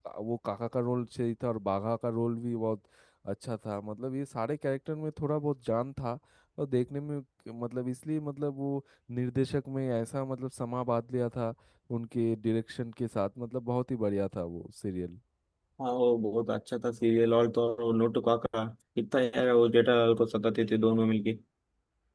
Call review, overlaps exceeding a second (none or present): none